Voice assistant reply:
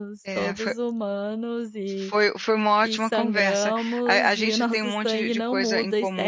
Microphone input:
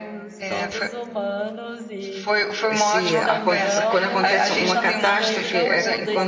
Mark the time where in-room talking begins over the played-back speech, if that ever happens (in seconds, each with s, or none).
2.7 s